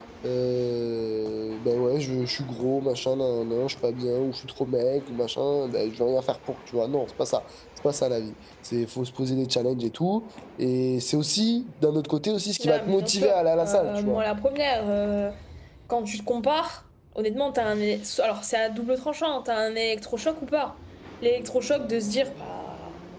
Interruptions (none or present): present